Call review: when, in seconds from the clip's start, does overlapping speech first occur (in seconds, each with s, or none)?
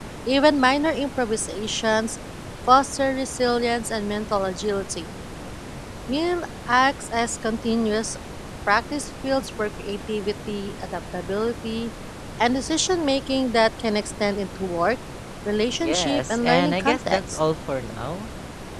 15.8 s